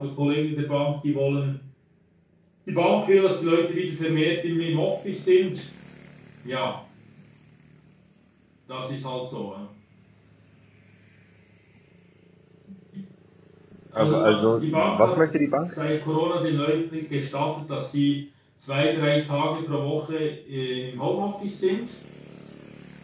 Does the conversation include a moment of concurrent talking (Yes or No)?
Yes